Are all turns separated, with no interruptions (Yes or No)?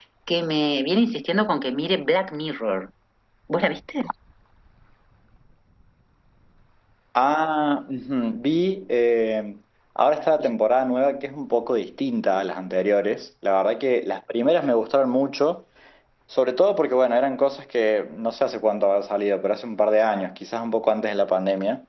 Yes